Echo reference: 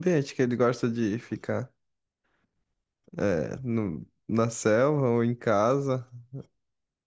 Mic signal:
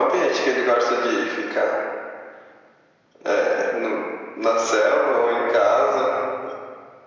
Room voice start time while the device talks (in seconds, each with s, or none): none